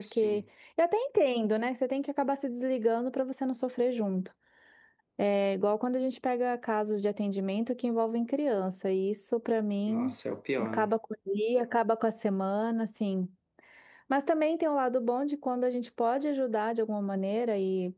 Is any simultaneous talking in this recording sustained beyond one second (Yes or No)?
No